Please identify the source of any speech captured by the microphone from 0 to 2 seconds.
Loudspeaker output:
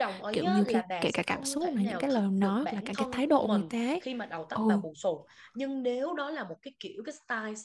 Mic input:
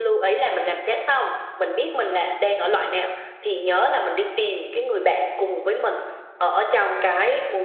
user only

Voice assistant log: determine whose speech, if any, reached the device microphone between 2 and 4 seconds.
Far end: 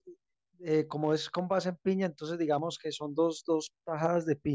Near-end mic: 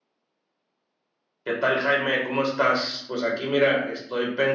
user only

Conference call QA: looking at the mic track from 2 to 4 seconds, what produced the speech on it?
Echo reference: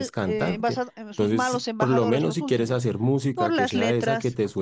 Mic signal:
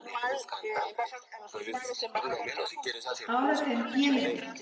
both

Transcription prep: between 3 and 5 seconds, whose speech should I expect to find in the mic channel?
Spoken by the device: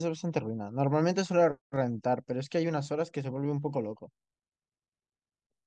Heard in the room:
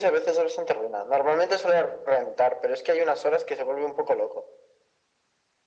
echo only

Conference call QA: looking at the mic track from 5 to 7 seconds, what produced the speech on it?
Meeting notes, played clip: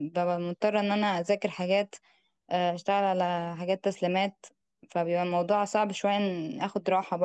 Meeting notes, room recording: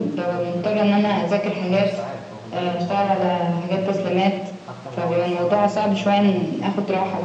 both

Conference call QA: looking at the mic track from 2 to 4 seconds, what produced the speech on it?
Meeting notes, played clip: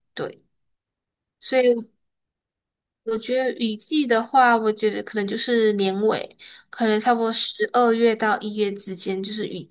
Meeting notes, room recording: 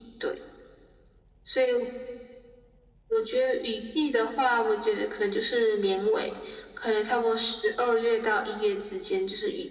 echo only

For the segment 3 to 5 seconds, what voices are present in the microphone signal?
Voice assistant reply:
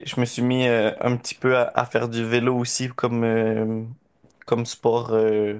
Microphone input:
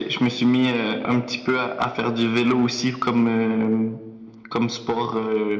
echo only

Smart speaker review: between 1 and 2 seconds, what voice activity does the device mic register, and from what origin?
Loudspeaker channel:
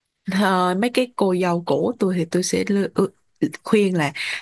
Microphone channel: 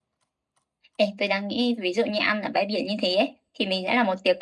user only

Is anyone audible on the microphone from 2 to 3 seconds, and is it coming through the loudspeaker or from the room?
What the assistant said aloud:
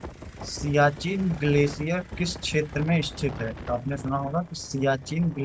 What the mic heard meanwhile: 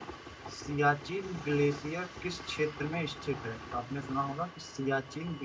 echo only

